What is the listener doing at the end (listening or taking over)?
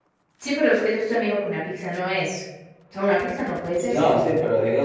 taking over